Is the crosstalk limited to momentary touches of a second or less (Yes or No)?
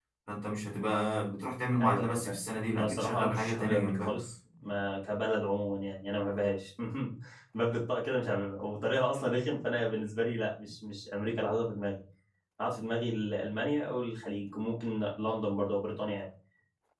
No